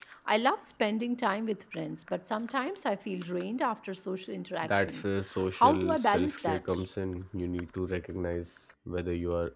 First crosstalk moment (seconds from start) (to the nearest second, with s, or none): 5 s